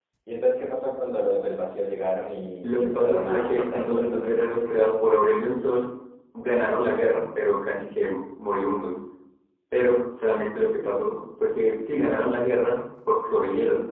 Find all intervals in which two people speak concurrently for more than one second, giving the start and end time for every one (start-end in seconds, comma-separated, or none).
2.6-4.9